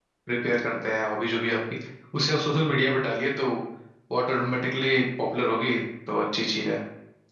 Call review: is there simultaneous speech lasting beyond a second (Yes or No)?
No